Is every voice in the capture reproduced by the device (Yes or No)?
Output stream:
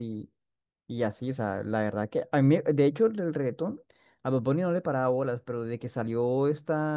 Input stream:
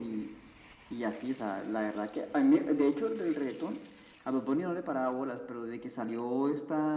Yes